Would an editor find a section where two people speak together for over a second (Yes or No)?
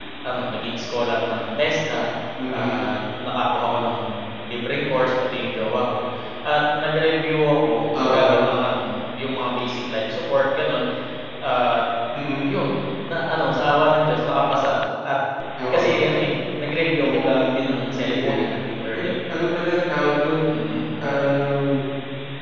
Yes